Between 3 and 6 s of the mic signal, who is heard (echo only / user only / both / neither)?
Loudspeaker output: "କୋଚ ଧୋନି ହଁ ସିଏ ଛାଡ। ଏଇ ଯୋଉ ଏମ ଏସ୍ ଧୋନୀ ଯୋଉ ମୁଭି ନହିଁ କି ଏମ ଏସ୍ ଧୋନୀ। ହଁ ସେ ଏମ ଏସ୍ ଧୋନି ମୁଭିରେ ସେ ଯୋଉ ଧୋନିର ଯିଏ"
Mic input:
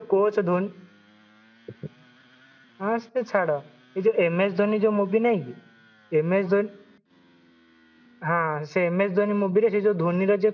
echo only